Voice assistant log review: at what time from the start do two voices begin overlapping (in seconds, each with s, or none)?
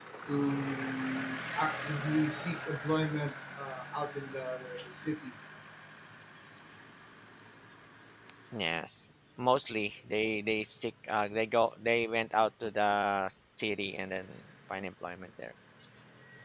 none